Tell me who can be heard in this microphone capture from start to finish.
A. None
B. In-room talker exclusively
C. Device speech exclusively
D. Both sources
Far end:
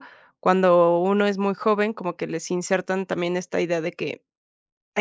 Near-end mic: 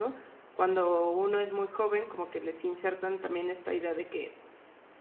C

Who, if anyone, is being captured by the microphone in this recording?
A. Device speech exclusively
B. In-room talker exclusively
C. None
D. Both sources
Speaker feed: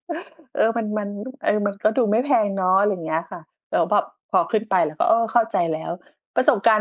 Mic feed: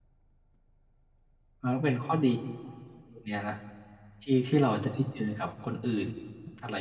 B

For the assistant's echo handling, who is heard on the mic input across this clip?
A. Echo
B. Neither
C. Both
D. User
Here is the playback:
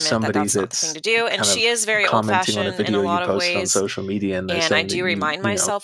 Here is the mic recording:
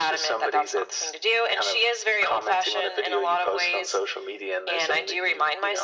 A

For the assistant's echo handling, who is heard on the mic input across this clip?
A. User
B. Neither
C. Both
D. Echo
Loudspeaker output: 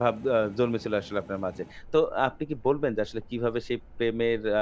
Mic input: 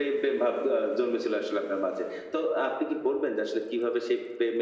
D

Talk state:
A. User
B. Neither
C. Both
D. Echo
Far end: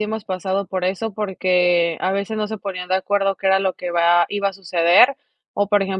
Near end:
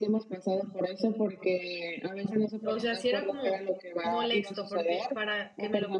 C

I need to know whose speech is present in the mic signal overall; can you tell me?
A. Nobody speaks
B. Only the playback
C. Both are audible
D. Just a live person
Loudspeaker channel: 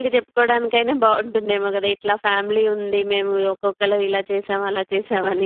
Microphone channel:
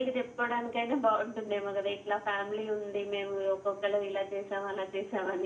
B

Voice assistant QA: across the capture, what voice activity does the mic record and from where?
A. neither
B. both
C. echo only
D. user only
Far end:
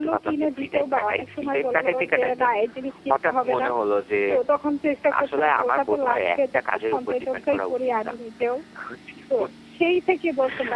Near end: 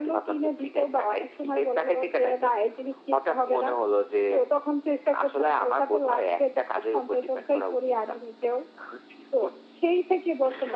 C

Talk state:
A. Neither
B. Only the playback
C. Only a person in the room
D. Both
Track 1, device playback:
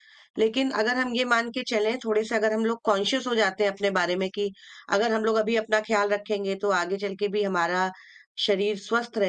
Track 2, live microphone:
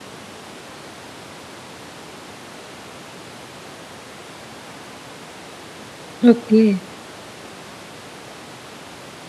C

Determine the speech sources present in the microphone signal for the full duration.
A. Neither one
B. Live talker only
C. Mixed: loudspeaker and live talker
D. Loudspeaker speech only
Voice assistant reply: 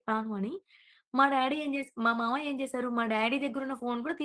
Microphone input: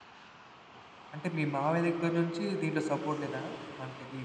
B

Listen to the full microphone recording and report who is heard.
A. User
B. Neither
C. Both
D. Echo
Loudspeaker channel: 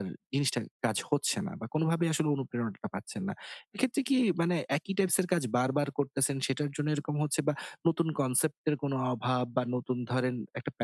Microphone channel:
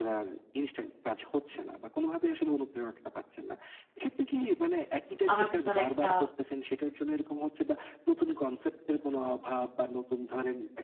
C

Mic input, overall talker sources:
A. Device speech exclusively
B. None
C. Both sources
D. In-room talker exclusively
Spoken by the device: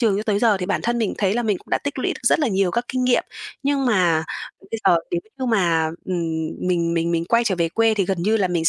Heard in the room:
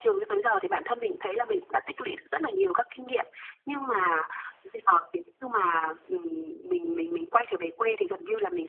A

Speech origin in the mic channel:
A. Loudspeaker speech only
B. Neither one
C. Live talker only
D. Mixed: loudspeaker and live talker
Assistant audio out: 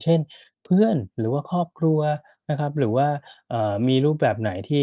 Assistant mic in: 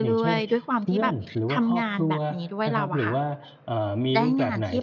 D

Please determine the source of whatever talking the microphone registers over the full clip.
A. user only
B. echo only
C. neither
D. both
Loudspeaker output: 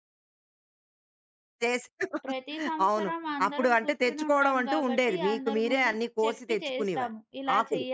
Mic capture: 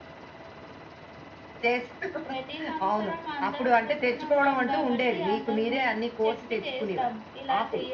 B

